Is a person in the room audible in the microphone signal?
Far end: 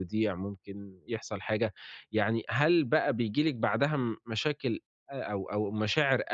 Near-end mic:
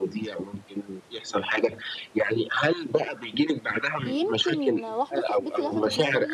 Yes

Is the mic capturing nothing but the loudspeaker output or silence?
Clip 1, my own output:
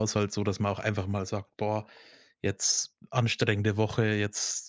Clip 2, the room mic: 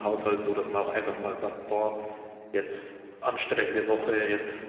Yes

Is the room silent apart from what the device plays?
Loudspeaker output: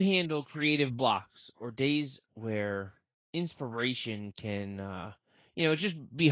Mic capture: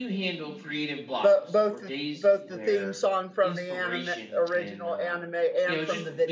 No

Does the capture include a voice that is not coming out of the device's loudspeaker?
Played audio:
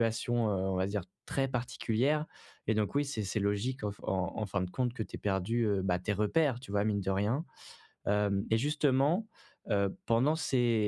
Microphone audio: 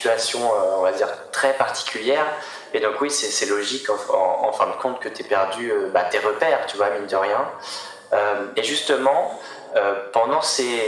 No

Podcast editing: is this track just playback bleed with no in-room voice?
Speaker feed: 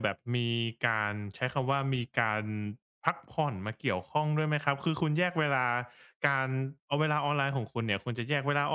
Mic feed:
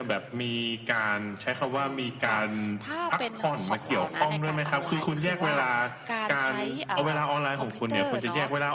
No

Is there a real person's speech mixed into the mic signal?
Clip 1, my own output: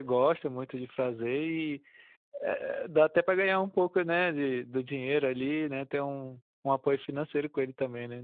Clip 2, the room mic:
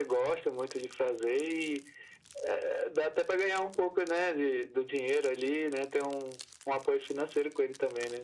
No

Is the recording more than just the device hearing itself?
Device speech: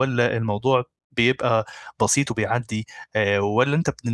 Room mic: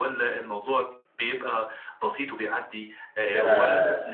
Yes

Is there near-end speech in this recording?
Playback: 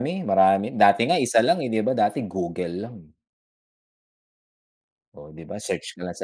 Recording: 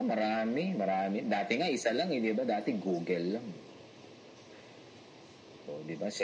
No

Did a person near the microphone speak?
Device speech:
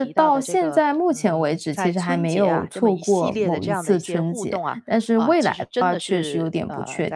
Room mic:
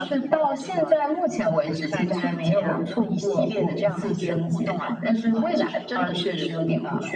No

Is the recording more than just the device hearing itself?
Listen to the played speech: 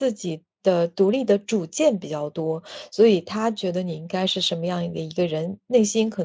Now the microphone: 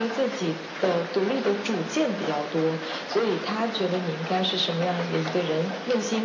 No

